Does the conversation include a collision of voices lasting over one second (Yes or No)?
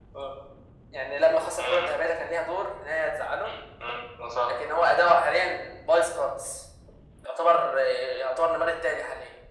No